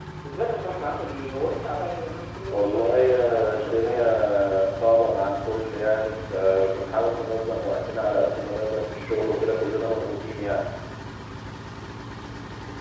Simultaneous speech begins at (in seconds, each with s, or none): 2.5 s